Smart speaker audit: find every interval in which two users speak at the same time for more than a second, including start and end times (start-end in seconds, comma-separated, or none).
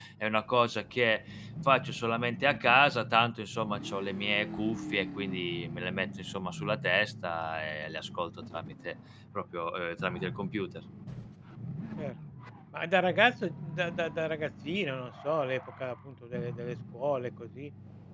none